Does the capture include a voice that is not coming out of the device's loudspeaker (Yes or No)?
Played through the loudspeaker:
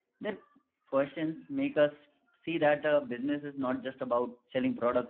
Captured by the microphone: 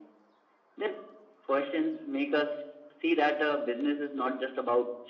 No